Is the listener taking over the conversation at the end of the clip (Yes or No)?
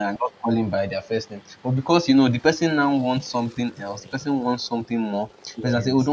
No